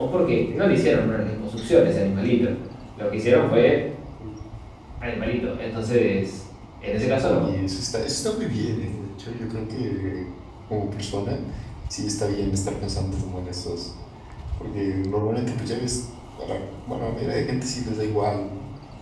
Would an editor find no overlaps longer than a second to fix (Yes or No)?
Yes